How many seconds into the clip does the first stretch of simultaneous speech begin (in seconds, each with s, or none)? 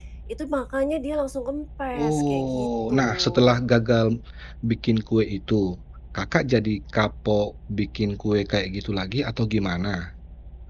1.9 s